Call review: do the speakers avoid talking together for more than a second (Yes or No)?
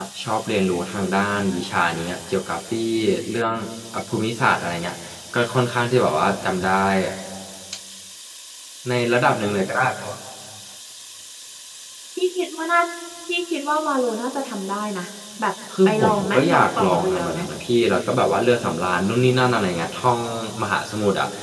No